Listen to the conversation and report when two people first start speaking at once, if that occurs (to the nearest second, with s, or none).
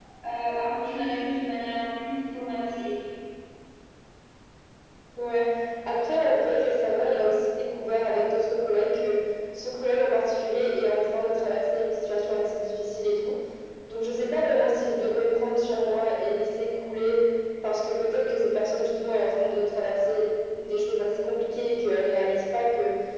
none